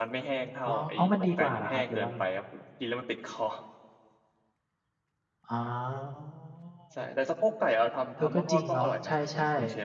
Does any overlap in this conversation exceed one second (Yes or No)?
Yes